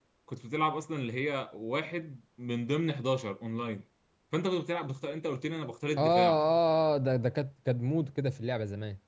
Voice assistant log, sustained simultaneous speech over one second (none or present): none